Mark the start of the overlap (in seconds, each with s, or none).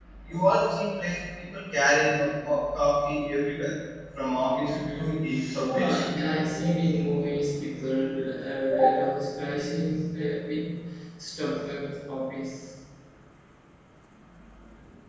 4.7 s